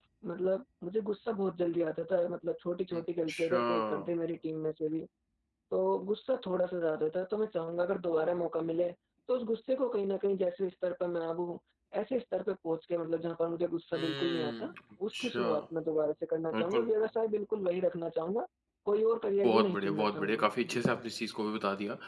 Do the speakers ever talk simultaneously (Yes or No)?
Yes